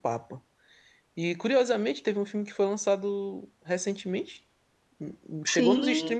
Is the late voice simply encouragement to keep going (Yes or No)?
Yes